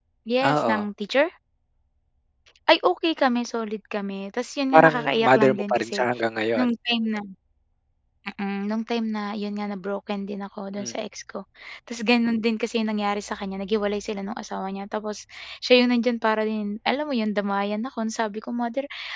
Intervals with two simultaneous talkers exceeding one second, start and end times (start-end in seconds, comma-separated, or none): 4.7-6.0